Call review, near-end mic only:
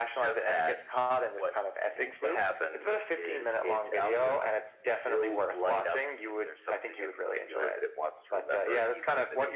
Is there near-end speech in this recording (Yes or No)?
No